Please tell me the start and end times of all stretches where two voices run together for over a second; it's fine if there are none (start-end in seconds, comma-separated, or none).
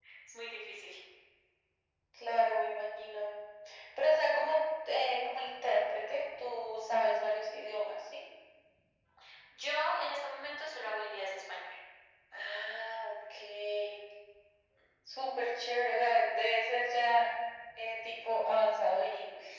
none